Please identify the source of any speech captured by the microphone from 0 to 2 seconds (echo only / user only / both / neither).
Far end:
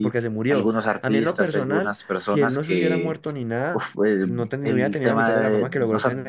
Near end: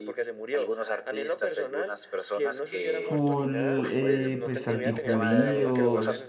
echo only